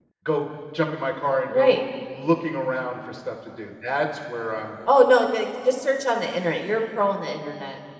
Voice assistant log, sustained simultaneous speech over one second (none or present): none